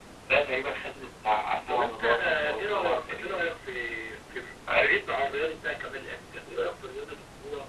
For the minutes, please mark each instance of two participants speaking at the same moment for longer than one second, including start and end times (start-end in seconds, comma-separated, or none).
1.7-3.5